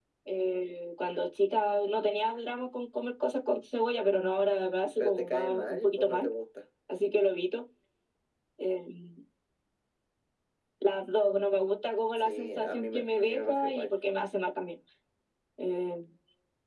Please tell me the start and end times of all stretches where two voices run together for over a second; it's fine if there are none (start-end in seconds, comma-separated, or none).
5.0-6.3, 12.2-13.9